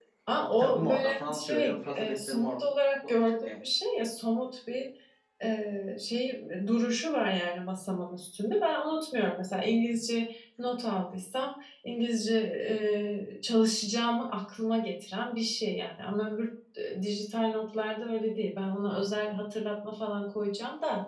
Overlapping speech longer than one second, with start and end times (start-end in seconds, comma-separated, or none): 0.6-2.6